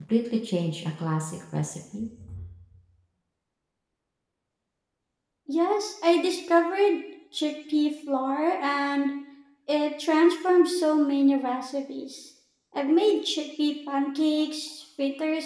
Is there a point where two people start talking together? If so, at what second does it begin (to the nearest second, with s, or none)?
none